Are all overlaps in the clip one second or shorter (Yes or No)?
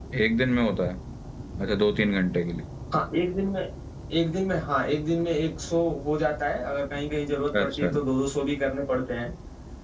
Yes